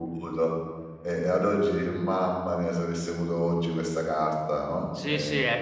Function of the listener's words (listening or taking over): taking over